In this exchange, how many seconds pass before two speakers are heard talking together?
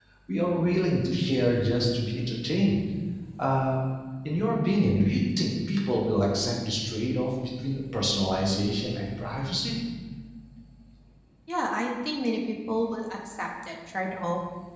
none

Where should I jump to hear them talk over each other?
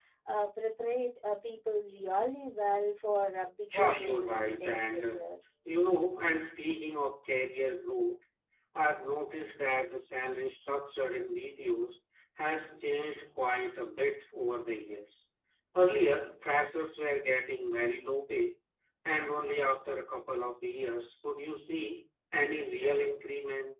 3.7 s

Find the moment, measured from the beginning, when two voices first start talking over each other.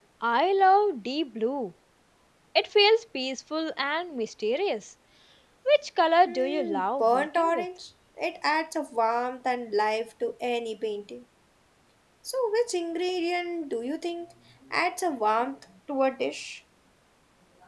6.3 s

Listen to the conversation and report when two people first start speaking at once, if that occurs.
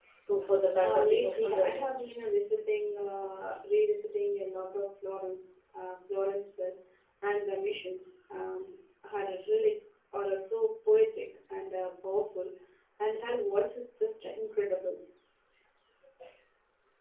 0.8 s

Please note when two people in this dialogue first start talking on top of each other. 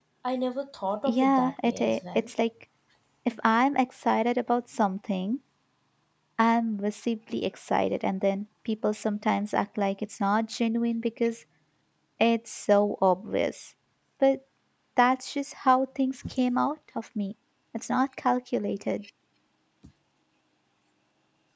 1.1 s

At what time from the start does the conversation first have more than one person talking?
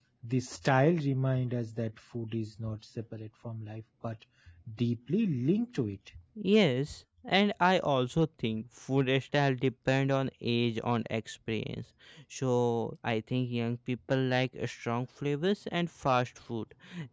none

